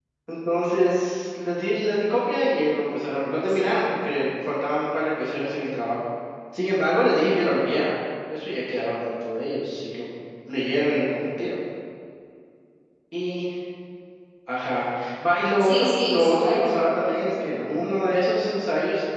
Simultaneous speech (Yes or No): Yes